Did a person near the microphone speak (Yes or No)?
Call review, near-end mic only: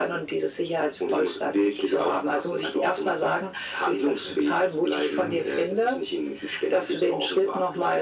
Yes